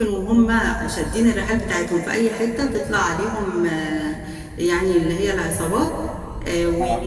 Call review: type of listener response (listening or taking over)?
listening